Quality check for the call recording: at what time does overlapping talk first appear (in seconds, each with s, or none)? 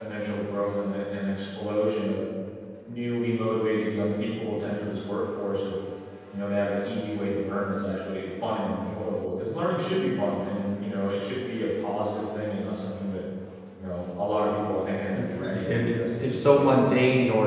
15.1 s